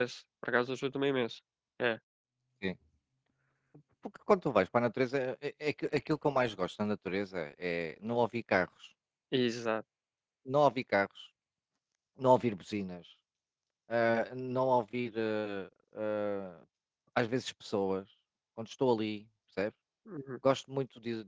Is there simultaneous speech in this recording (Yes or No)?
No